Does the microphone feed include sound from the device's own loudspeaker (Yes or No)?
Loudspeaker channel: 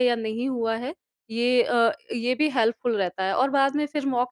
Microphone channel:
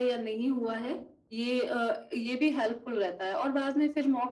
Yes